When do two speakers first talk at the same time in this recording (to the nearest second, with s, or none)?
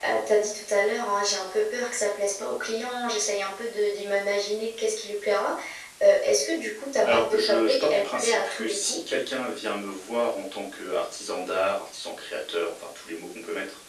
7 s